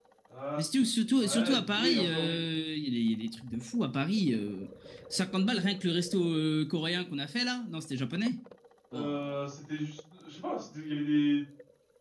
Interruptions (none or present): present